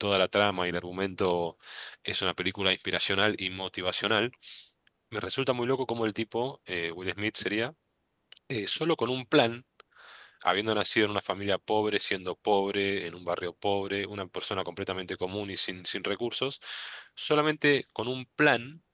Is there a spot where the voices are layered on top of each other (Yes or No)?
No